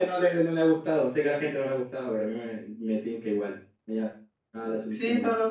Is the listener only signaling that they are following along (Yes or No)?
No